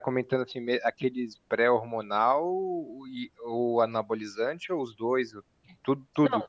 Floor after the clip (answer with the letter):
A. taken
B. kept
A